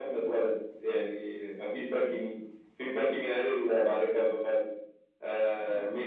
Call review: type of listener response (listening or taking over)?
listening